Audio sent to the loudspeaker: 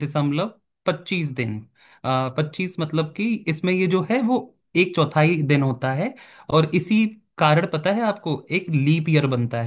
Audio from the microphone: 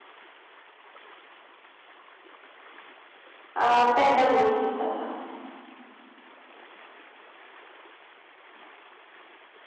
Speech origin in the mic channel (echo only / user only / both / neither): user only